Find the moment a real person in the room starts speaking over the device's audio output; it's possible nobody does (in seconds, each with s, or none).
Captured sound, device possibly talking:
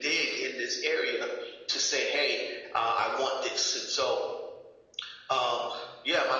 none